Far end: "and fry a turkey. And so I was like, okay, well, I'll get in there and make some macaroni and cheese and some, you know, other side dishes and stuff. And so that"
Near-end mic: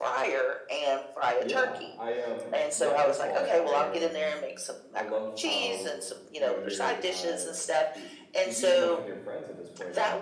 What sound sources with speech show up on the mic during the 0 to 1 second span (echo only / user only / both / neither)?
echo only